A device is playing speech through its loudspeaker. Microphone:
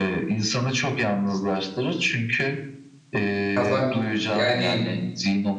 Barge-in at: 3.5 s

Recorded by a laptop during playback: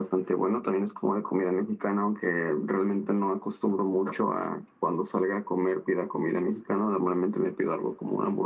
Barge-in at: none

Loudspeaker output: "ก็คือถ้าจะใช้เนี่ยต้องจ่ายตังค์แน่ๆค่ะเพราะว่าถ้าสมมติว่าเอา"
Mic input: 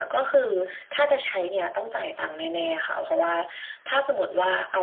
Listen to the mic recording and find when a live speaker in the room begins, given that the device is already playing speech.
none

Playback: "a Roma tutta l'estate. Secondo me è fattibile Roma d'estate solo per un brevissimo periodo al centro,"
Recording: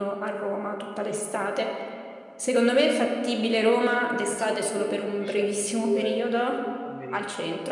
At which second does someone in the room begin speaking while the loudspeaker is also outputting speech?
4.2 s

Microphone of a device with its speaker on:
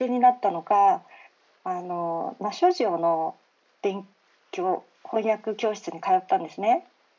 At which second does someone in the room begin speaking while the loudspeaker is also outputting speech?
none

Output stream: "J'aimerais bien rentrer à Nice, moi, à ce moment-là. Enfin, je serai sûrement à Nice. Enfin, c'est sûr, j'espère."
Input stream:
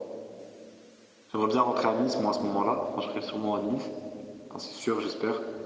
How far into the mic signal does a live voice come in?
none

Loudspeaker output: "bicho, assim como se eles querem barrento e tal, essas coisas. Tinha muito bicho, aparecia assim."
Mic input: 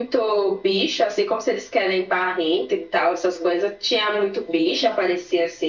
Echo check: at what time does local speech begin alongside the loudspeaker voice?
none

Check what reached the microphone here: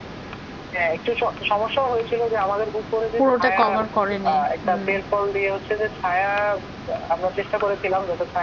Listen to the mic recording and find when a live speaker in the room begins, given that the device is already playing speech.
3.1 s

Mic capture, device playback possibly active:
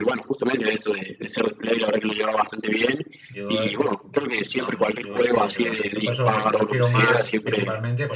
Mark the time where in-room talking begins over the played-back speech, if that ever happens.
3.3 s

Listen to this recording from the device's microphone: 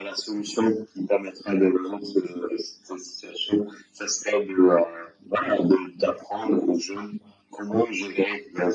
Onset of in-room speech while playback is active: none

